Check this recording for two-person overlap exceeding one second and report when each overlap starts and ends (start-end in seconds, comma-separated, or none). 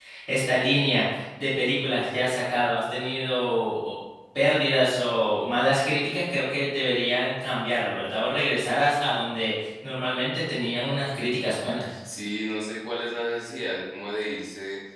none